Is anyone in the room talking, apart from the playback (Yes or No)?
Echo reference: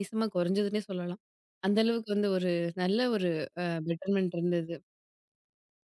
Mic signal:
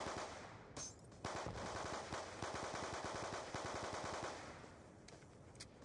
No